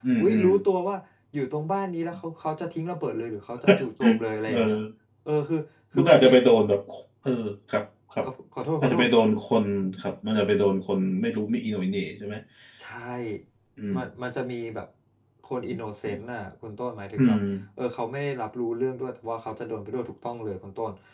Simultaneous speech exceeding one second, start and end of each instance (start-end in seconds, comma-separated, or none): none